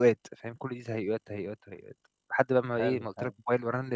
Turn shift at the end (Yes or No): No